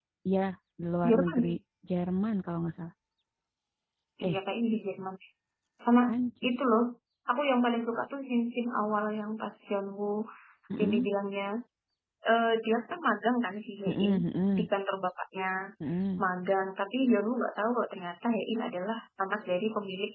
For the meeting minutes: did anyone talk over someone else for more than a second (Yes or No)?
No